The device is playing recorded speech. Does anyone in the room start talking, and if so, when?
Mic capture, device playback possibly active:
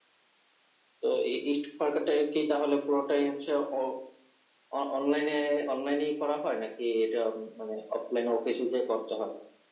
none

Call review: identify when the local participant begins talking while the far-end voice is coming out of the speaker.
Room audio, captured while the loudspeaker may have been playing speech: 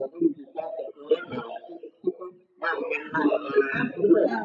none

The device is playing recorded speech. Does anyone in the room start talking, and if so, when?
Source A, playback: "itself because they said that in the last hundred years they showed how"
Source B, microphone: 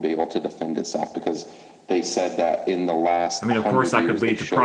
3 s

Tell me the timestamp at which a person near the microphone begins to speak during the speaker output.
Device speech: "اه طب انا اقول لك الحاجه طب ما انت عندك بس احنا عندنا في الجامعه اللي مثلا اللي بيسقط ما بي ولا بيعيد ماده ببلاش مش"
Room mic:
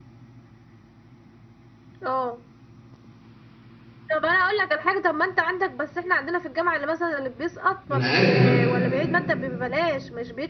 8 s

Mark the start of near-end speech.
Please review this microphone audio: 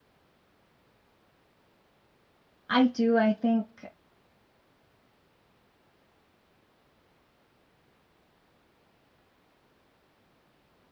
3 s

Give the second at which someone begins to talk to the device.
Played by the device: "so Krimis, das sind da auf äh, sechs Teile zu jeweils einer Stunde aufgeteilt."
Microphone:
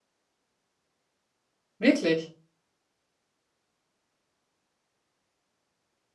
2 s

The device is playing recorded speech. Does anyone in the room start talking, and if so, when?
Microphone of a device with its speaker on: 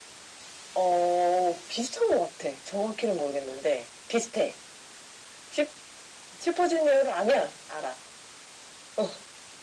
none

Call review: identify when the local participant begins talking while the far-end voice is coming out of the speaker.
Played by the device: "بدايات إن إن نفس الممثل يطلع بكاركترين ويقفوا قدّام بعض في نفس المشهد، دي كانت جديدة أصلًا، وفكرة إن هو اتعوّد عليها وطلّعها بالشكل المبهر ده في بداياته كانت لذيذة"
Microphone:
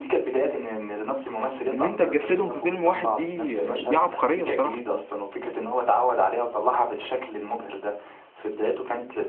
2 s

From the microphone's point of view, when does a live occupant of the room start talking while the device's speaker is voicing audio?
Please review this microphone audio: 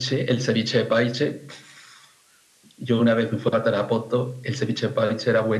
none

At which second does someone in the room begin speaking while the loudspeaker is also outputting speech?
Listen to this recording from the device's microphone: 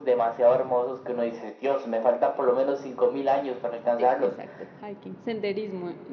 4 s

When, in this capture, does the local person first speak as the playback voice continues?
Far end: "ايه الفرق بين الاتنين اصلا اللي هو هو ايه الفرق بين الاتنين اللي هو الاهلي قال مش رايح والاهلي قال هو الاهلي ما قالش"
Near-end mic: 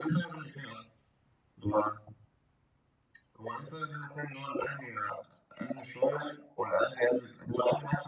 none

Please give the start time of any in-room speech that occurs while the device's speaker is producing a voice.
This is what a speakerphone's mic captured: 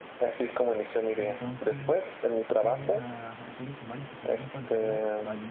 1 s

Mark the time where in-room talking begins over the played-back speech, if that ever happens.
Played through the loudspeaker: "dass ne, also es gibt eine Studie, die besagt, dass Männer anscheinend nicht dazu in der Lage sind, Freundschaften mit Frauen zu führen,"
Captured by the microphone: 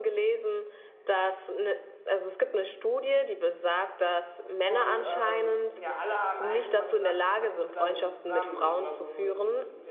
5 s

